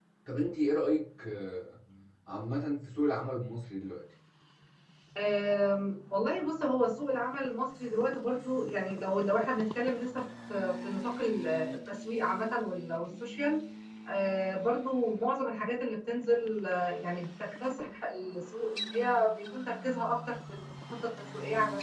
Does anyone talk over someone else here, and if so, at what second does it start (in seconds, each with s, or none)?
none